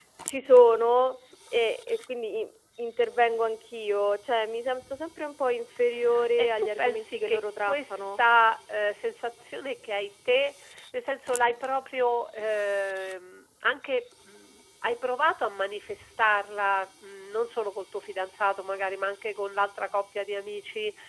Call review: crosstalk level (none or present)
present